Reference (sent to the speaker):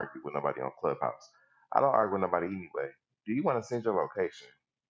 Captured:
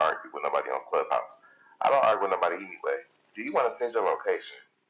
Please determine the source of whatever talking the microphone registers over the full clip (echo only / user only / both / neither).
echo only